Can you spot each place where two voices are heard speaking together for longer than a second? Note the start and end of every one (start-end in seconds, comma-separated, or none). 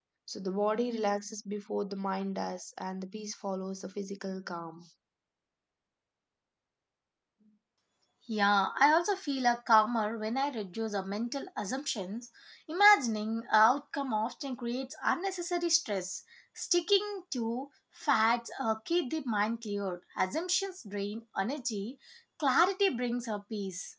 none